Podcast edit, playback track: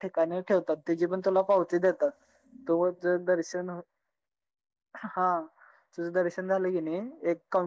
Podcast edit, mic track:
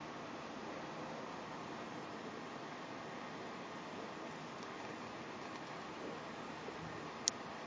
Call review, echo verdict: none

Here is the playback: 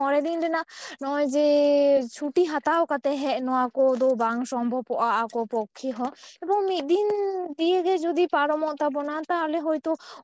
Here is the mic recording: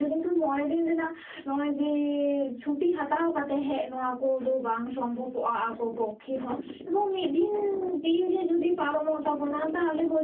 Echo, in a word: present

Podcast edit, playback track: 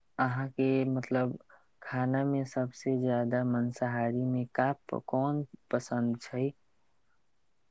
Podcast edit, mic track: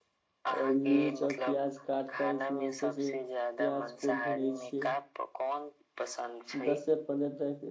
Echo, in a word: present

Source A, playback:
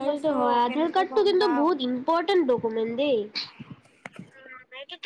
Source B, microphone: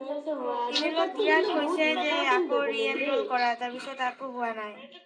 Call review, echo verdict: present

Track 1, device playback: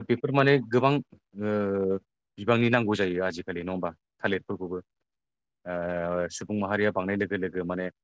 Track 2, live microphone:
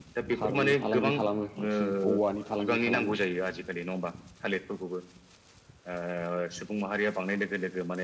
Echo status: present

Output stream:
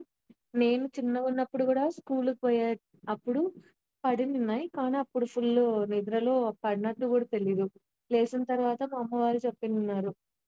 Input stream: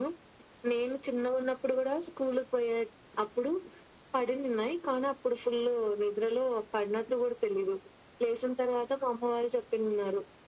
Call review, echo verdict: present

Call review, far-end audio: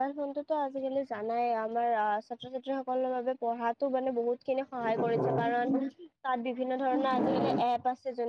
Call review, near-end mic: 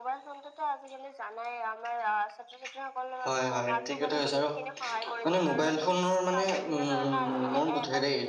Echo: present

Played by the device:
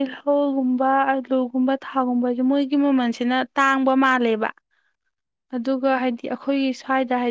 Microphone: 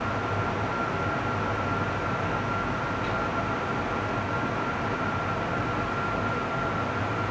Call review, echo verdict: none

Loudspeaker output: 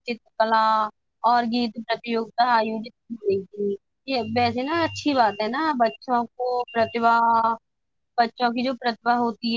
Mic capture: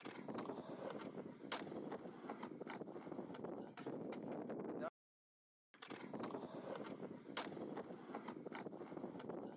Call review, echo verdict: none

